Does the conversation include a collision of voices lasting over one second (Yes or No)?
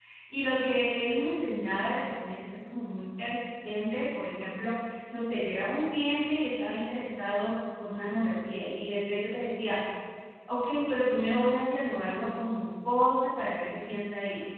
No